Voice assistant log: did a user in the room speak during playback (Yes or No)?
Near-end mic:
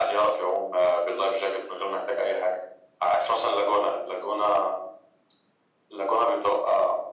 No